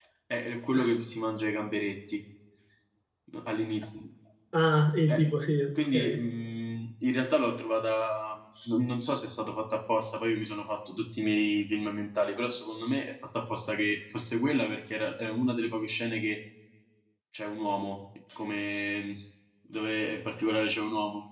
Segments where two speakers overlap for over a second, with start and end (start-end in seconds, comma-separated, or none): none